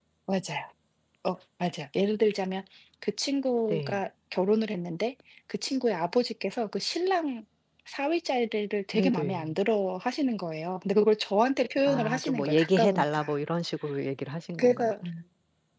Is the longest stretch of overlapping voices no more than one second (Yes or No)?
No